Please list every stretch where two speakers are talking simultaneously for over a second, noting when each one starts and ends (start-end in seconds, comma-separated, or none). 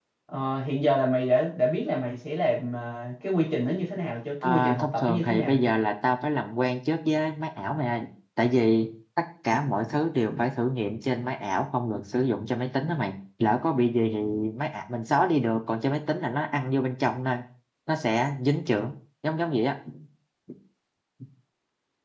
4.4-5.7